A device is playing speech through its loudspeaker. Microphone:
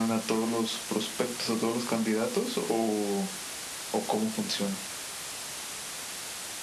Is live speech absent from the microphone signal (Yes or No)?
Yes